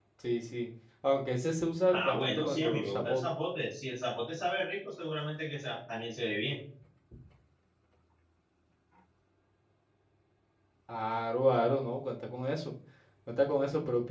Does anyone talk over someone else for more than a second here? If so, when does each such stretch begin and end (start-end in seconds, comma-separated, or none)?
1.9-3.3